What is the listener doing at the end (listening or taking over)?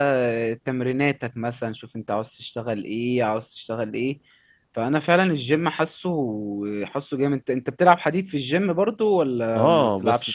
taking over